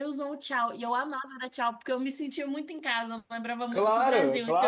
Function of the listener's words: taking over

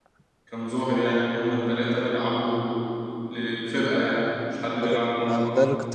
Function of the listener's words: taking over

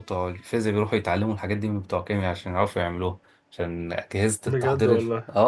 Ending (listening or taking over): listening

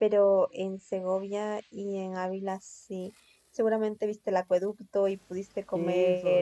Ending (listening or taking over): taking over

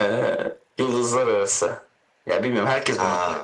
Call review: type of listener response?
listening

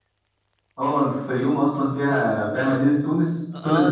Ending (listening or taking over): taking over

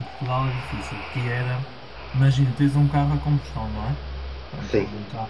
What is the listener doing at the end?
listening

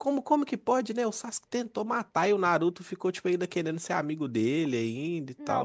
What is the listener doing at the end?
taking over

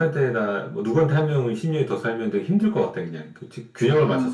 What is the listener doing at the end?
listening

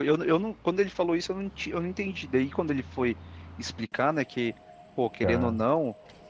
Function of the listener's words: listening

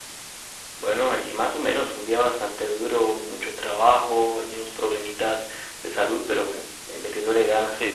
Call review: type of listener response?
taking over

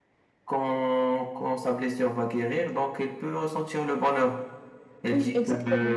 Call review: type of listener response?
listening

